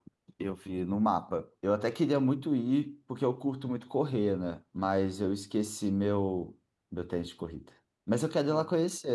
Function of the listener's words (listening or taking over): listening